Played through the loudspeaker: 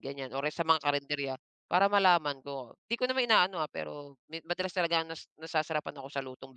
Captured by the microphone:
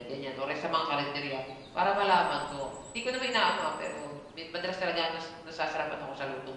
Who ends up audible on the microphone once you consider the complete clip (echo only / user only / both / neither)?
echo only